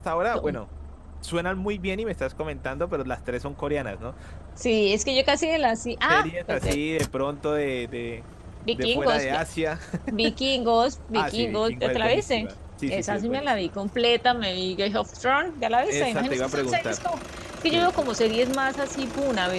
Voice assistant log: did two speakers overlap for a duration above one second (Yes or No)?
Yes